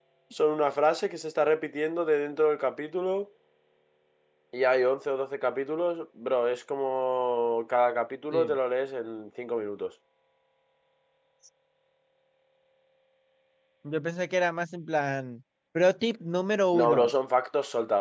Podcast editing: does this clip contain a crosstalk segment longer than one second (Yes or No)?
No